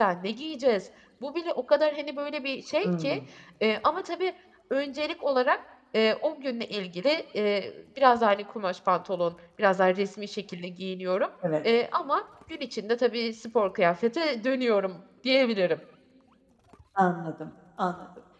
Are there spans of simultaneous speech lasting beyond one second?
No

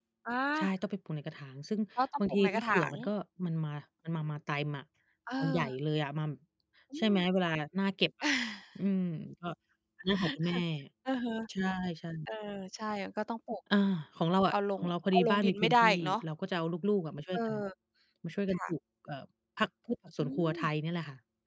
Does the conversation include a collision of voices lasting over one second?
Yes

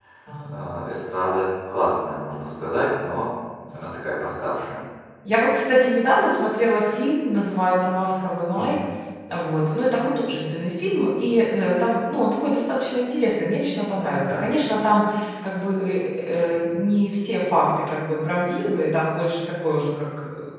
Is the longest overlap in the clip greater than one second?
No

